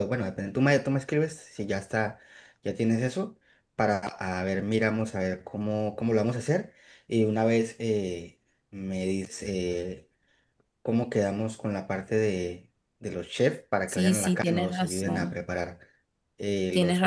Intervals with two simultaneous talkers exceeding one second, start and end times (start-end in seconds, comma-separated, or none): 13.9-15.3